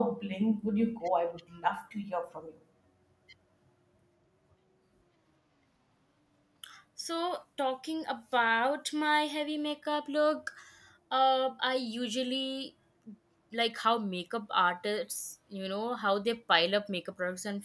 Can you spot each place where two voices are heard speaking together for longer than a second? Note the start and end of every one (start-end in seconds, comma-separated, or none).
none